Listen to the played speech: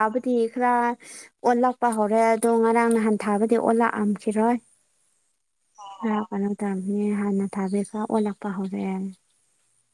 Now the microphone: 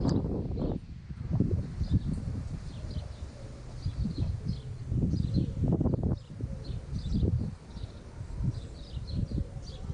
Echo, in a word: none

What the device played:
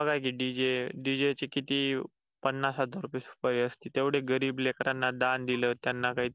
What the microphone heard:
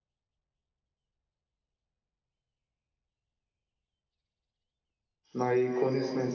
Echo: none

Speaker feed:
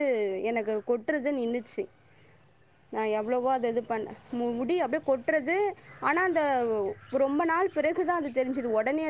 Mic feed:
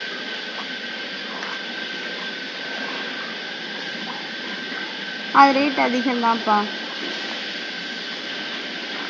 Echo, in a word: none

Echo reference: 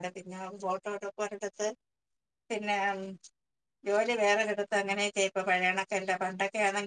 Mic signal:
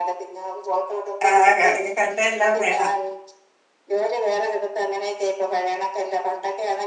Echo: present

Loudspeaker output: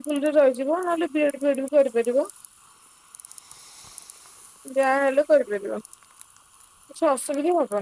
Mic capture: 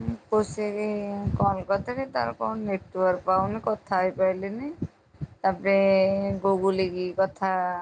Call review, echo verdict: none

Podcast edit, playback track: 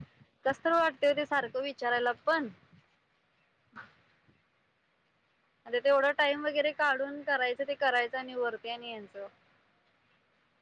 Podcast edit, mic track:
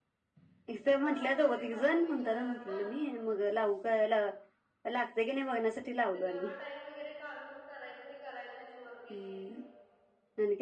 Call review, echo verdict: present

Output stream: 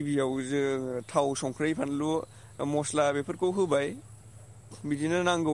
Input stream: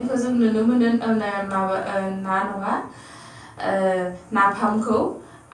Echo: none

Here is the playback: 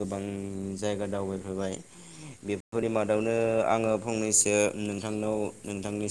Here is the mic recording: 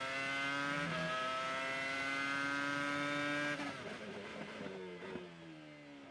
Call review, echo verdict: none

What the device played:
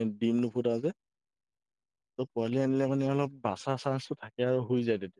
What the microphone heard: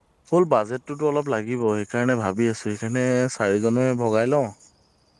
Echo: none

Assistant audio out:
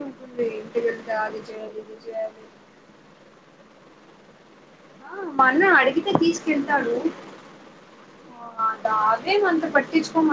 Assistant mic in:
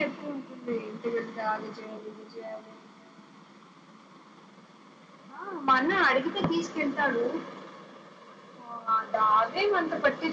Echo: present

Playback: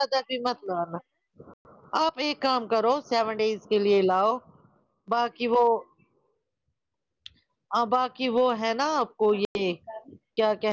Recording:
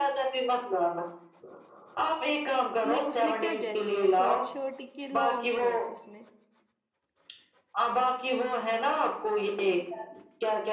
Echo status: present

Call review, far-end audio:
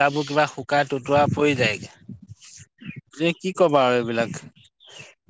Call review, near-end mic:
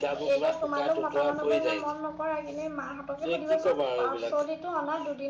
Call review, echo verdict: present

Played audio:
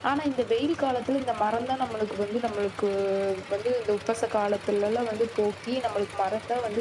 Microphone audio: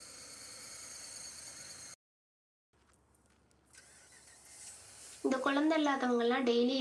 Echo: none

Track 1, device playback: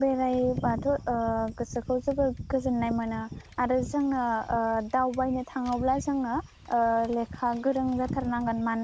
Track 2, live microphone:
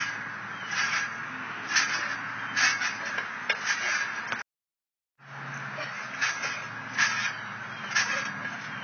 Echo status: none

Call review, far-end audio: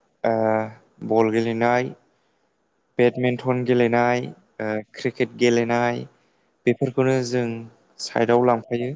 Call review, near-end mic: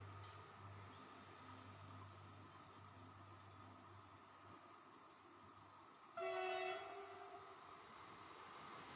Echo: none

